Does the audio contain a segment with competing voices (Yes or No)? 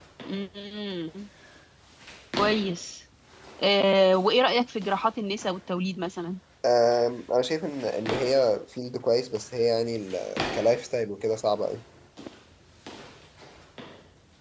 No